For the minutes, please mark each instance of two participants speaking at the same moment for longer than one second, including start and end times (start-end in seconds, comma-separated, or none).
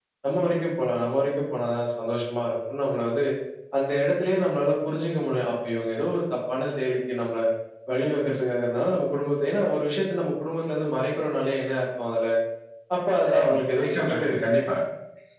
13.2-14.6